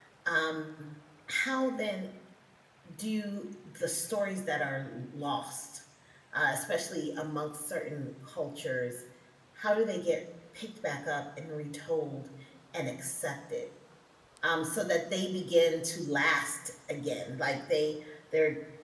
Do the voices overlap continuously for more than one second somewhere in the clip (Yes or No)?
No